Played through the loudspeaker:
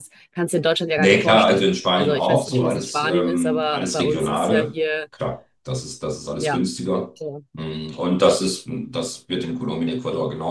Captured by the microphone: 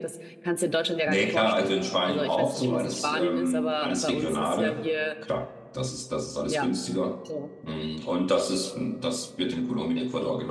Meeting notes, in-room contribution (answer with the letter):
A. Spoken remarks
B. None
B